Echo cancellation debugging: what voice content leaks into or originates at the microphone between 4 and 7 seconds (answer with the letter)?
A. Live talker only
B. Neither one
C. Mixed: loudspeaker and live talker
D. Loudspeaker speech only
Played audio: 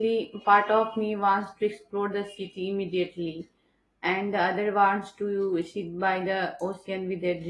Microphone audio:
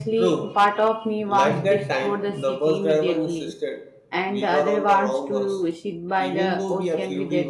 C